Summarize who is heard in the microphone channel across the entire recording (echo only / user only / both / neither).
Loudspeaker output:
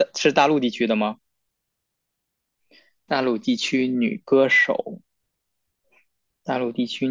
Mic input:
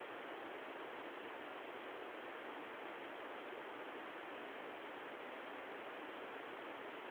neither